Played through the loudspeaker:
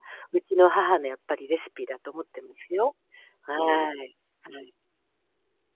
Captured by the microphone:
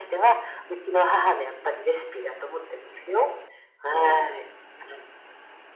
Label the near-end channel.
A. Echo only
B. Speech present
A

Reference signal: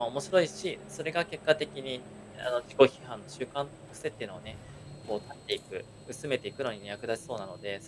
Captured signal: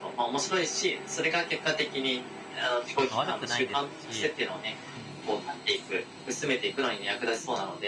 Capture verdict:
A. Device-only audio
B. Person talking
B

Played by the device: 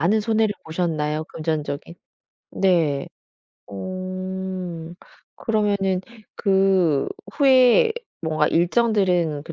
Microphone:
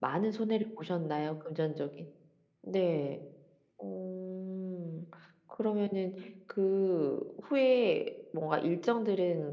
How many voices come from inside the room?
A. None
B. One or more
A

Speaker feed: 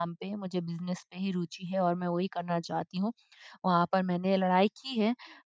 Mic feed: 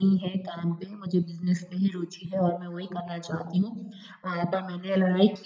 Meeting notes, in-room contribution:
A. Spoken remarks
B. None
B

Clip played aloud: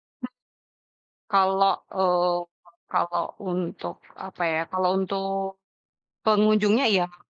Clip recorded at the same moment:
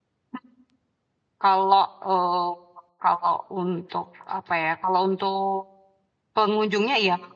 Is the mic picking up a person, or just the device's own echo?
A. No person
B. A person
A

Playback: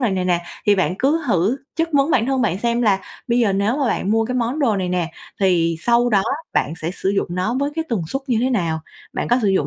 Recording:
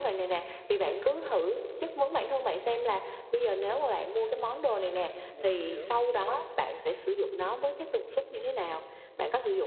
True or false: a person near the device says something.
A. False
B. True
B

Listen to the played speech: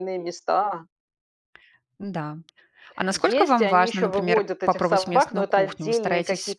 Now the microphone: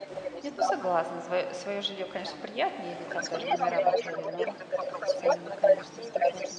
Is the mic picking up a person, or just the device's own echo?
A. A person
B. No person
A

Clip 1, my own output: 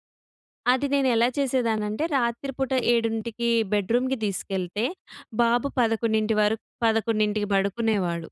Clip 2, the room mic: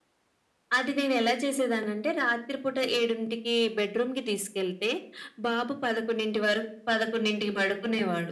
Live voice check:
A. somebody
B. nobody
B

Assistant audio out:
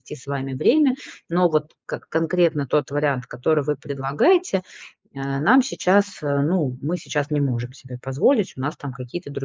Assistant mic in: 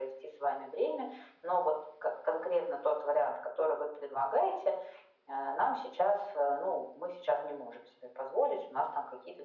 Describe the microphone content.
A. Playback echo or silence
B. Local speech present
A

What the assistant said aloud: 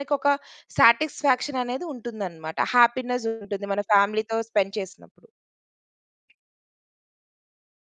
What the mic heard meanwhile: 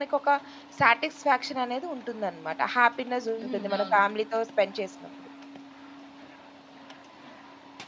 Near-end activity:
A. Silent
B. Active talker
B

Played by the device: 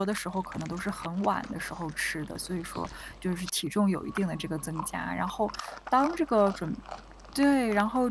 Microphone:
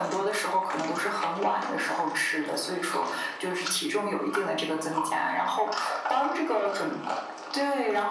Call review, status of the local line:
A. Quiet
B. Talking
A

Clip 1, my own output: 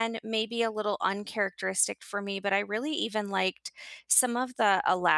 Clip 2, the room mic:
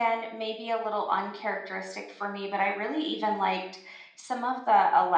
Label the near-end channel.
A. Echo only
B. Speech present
A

